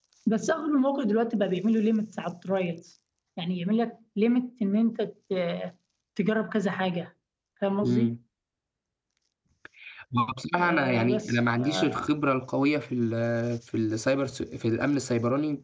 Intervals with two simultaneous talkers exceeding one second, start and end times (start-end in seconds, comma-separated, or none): 10.6-12.0